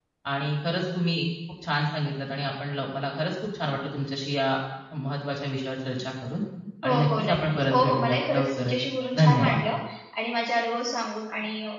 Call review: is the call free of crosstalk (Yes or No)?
No